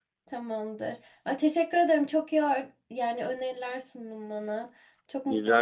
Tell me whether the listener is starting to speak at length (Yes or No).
Yes